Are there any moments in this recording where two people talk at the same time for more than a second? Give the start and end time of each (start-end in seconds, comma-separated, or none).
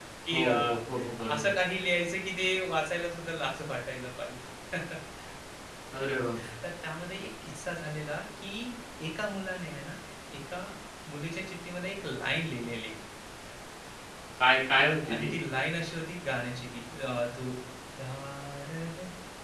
none